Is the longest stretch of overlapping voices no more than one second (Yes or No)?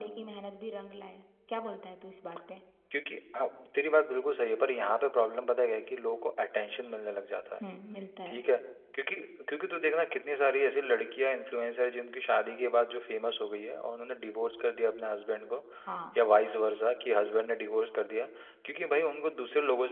Yes